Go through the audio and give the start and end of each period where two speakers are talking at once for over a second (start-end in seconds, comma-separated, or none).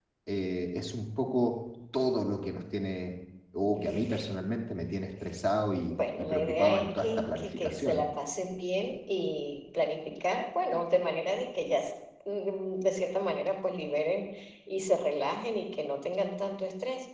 6.2-8.0